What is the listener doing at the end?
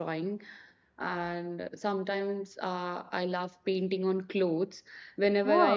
listening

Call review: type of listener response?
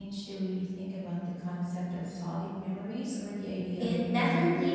taking over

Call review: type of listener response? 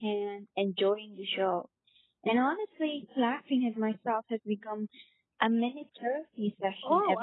taking over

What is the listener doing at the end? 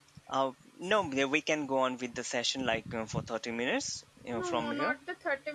taking over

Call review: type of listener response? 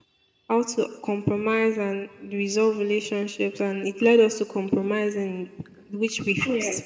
listening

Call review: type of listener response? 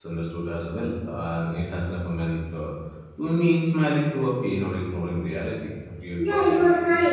taking over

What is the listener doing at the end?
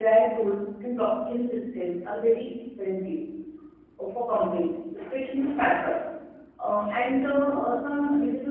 listening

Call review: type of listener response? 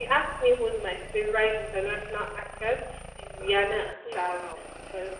listening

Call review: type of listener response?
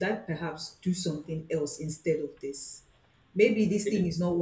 listening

